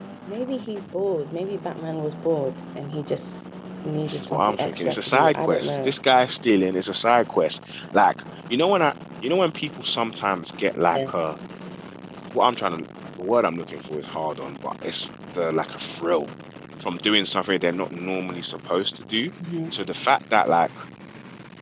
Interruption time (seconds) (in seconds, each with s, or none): 4.1 s